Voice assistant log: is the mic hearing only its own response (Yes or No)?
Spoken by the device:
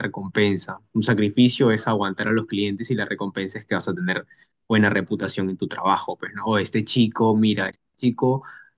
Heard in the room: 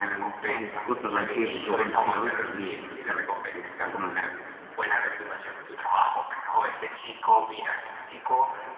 No